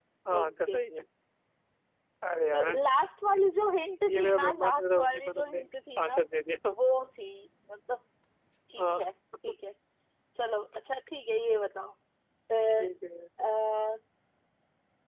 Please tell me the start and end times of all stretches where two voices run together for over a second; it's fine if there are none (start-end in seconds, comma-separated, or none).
4.0-5.6